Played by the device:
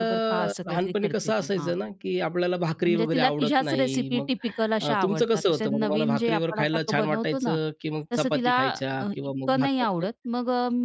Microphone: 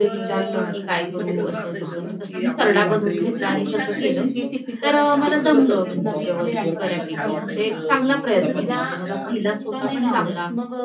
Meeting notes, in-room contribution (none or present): present